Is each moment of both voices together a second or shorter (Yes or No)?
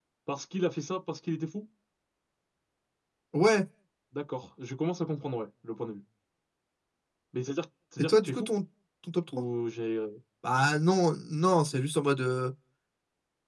Yes